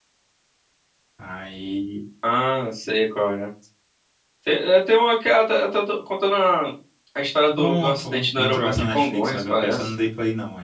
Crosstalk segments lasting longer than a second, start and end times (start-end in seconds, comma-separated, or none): 7.6-9.9